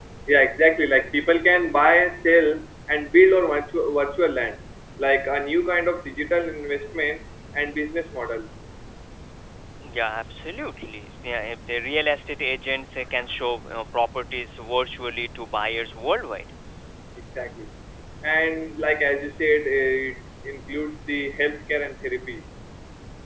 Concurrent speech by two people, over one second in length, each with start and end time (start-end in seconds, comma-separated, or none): none